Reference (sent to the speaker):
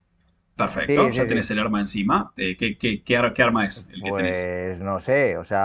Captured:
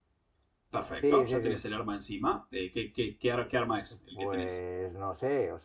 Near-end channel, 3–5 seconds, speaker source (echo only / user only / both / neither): echo only